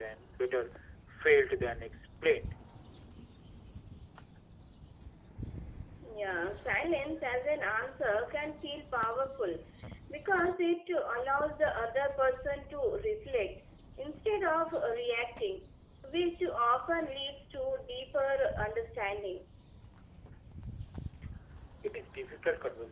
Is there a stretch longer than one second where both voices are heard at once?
No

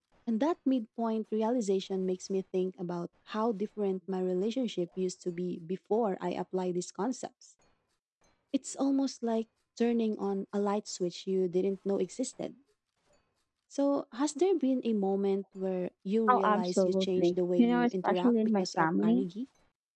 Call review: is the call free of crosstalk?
No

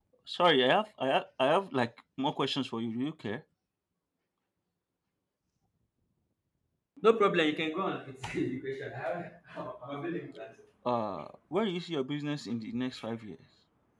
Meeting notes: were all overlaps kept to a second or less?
Yes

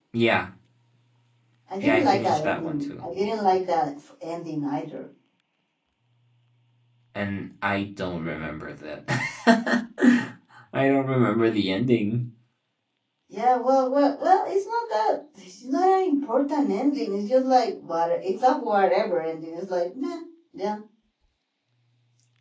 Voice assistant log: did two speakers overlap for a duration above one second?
Yes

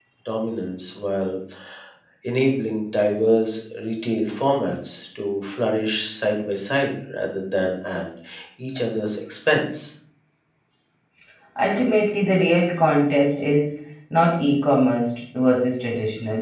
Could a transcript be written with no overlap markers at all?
Yes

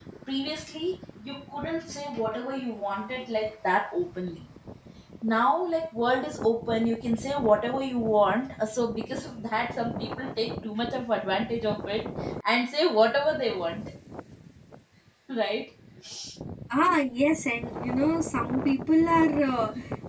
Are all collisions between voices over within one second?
Yes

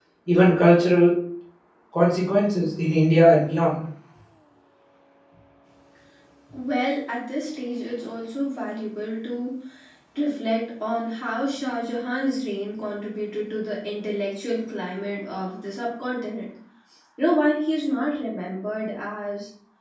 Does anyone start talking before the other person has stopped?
No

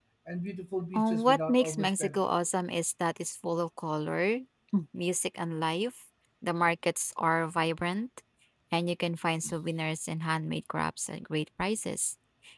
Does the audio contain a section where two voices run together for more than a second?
Yes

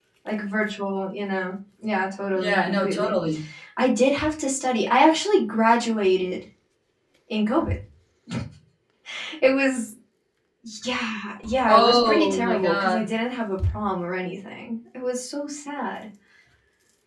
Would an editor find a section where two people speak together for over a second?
Yes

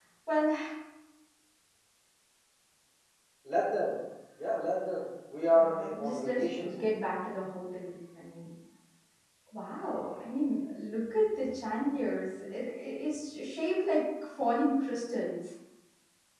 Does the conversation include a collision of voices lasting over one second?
Yes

